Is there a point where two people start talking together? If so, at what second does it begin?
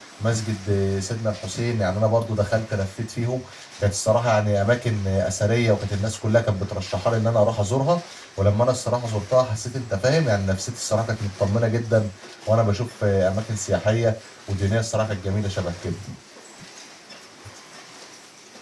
none

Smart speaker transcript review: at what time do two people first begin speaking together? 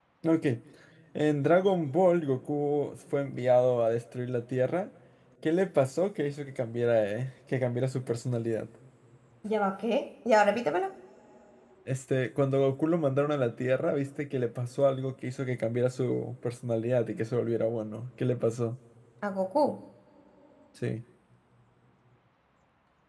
none

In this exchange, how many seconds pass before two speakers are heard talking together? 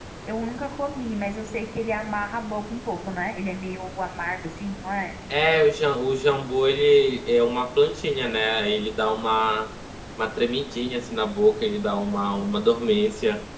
none

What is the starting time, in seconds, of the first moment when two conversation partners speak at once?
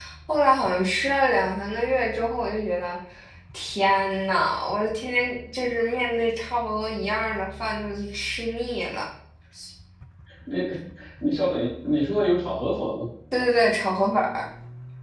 none

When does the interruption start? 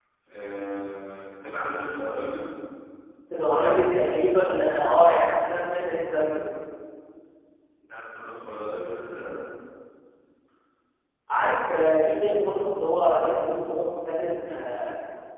none

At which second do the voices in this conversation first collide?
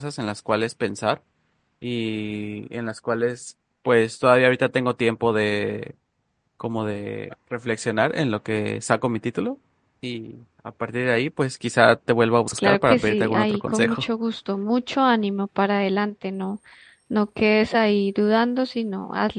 12.6 s

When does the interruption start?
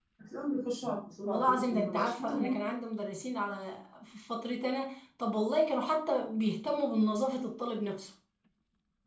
1.2 s

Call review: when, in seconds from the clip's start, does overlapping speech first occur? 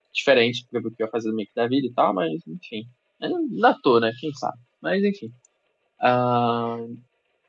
none

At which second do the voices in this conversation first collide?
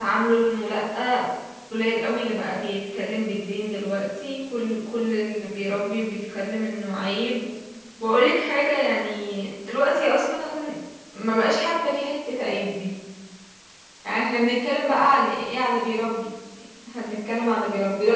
none

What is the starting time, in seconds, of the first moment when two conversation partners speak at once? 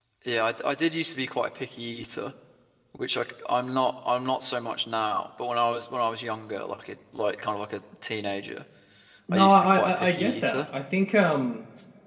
9.3 s

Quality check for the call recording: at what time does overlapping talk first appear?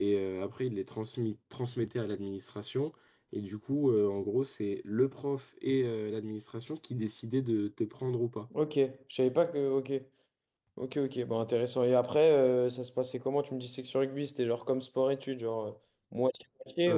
none

